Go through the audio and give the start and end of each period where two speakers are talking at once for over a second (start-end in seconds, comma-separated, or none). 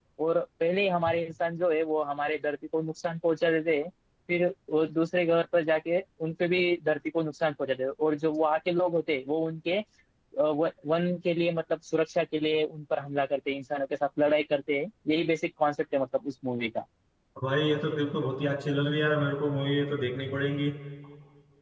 none